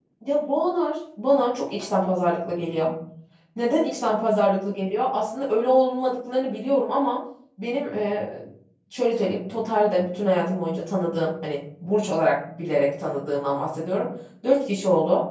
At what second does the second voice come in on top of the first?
none

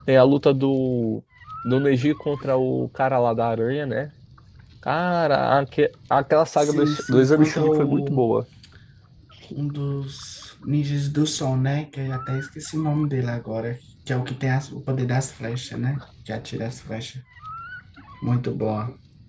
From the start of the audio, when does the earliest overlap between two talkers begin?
6.6 s

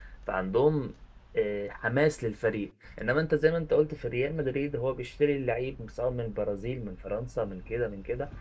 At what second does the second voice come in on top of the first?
none

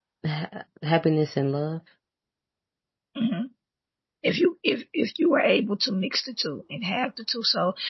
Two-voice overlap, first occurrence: none

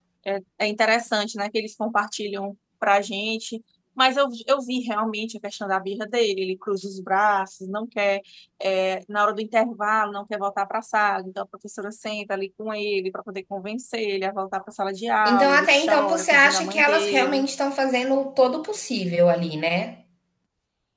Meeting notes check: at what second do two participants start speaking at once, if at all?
15.2 s

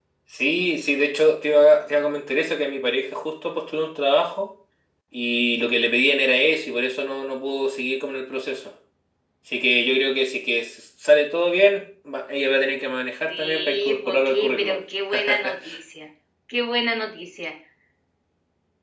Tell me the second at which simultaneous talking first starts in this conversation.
13.3 s

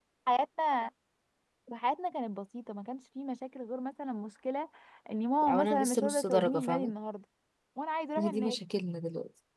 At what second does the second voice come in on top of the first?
5.5 s

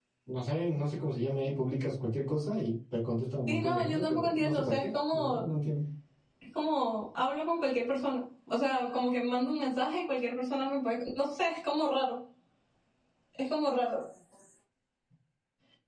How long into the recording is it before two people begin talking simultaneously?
3.5 s

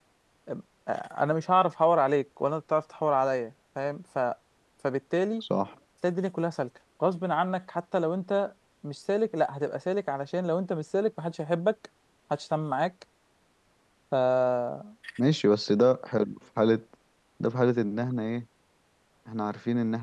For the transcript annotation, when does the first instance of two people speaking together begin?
none

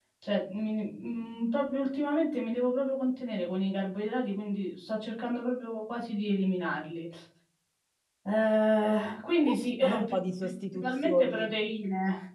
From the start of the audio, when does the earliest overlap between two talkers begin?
9.4 s

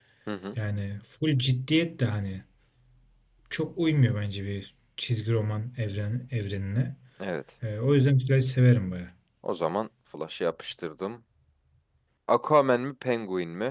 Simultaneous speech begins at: none

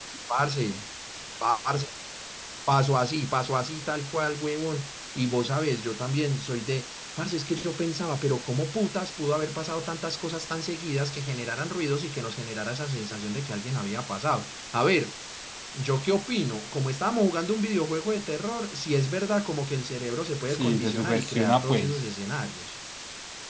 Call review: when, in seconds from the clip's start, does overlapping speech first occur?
20.5 s

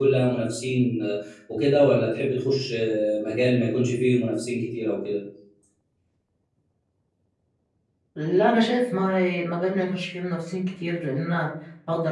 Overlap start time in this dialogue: none

